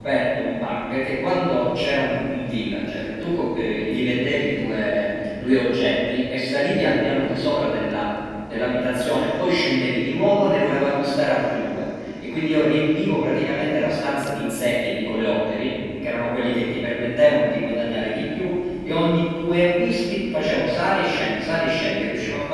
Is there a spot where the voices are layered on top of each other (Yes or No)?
No